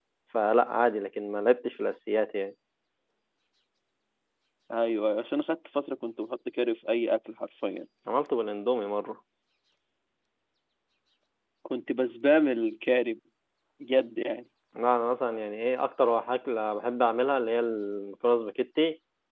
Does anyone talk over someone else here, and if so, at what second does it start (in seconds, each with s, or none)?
none